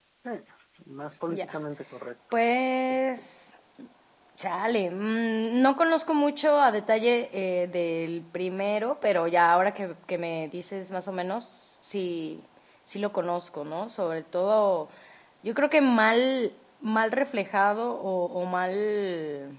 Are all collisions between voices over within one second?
Yes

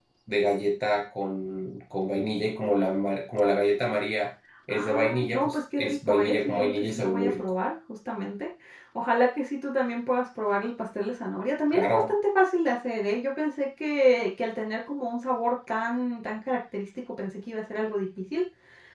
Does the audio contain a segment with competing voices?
Yes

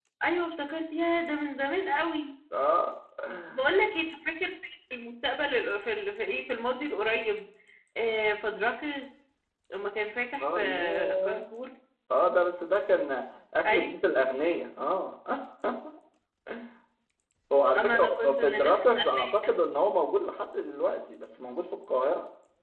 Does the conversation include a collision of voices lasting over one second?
Yes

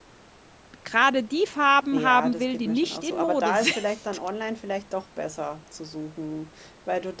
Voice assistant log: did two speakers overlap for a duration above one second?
Yes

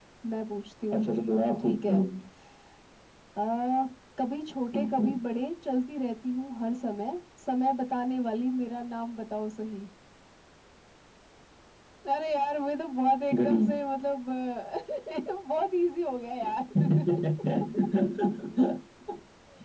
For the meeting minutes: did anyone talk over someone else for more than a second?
No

